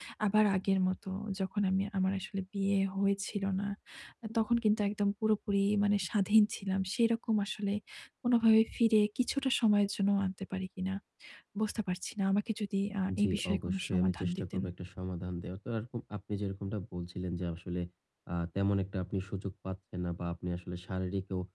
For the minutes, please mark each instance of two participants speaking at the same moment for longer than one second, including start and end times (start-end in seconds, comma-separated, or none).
13.2-14.6